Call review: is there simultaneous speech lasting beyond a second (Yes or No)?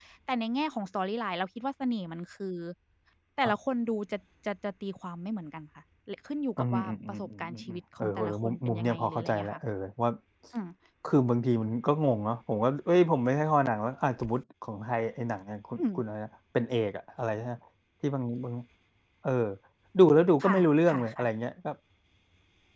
Yes